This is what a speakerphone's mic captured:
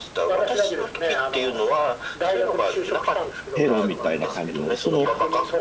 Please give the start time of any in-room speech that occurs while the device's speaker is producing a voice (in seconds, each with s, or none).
3.5 s